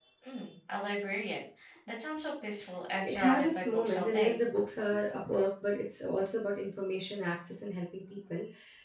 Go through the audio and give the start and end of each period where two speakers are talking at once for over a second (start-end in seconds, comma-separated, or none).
3.0-4.4